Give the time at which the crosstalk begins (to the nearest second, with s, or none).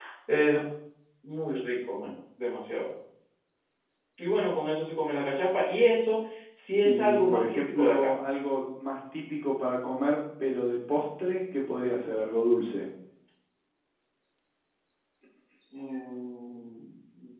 7 s